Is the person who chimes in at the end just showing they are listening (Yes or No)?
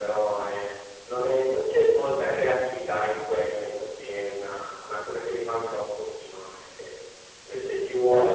Yes